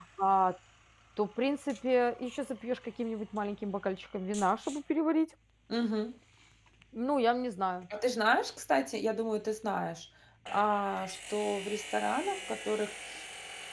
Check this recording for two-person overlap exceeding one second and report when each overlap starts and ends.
none

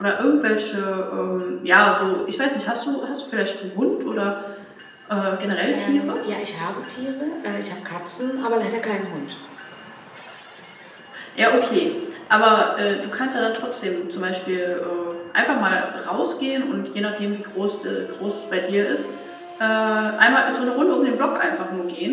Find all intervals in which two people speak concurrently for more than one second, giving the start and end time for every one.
none

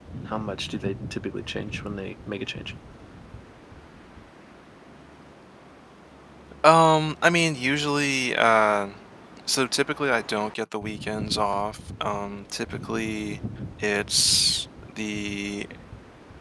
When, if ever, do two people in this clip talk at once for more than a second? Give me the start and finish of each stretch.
none

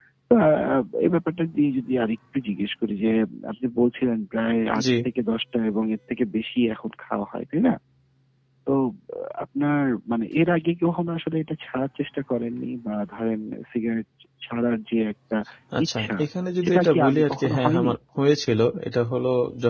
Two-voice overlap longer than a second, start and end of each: 16.6-17.9

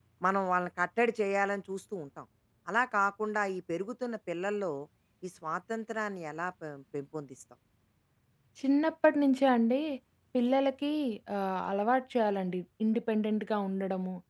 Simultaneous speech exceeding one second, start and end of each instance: none

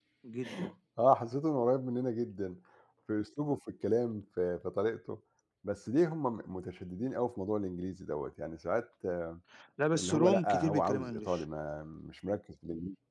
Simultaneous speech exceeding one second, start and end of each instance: 10.0-11.4

